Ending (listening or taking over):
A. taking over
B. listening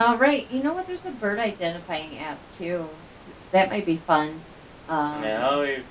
A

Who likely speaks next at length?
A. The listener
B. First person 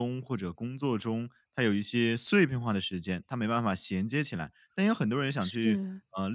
B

